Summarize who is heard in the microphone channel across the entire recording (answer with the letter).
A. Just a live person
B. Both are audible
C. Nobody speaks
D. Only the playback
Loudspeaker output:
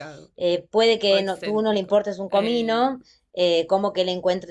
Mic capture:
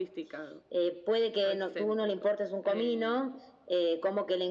D